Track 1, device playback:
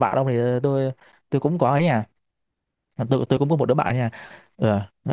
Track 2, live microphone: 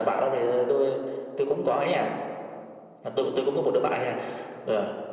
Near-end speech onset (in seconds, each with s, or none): none